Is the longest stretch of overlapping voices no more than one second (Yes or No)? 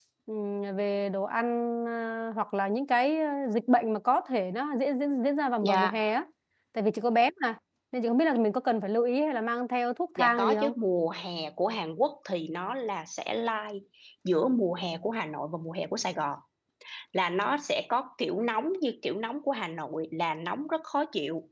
Yes